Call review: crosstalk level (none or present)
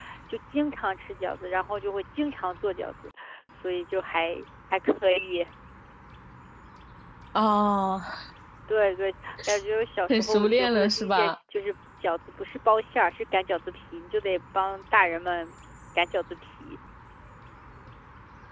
present